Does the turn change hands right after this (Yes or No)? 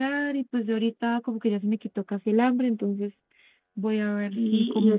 Yes